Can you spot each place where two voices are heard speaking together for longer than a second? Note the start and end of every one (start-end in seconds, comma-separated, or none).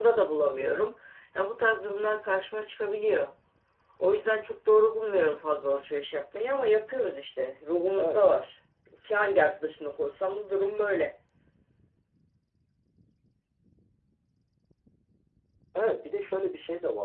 none